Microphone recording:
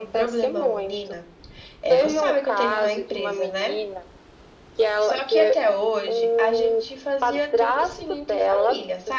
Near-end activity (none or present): present